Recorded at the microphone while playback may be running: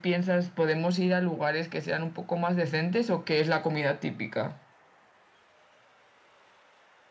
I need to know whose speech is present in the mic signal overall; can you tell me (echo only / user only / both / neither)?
echo only